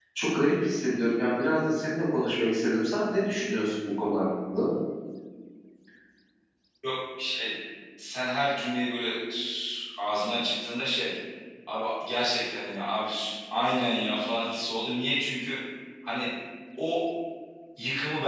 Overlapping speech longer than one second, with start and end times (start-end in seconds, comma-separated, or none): none